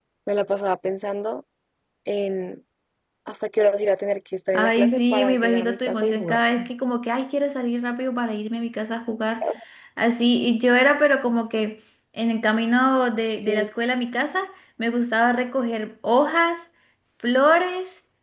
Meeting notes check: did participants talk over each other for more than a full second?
Yes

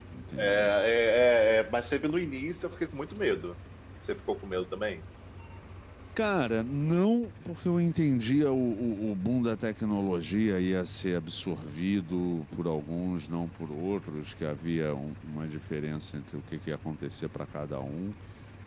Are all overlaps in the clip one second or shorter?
Yes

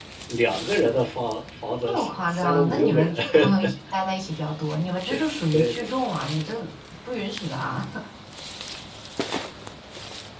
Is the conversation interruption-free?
No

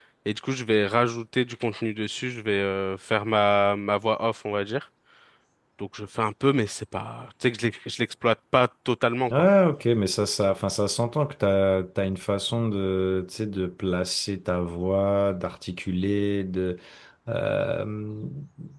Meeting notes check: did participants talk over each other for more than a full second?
No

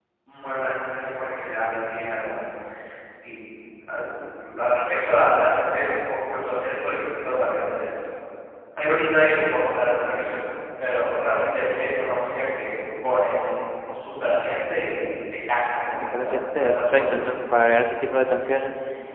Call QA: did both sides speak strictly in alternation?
No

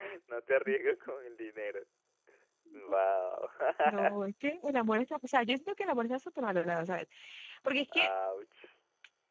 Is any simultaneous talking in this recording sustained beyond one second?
No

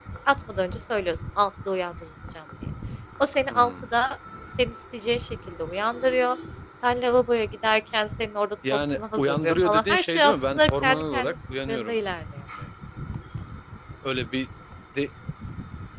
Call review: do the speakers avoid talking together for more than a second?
No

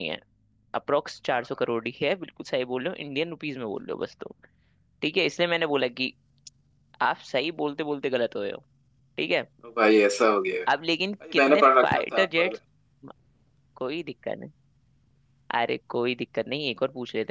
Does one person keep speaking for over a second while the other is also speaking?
Yes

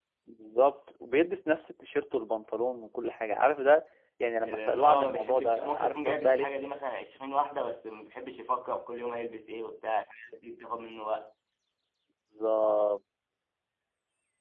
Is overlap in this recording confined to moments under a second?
No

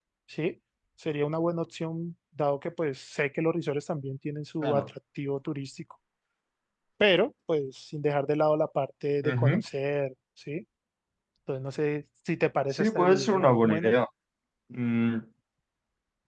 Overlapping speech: Yes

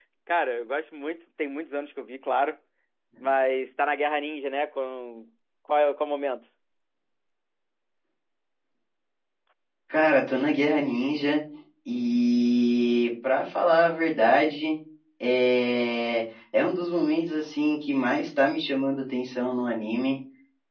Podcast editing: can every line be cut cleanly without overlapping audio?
Yes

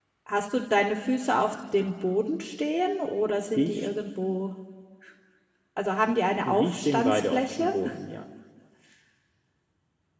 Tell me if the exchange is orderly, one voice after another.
No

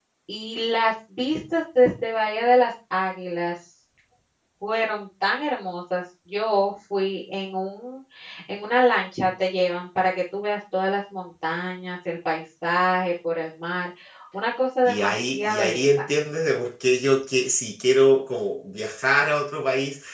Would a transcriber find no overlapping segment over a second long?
No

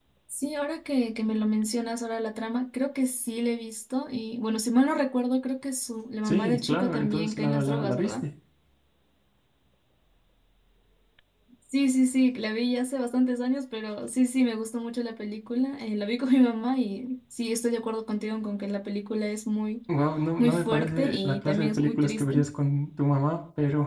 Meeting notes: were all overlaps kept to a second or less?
No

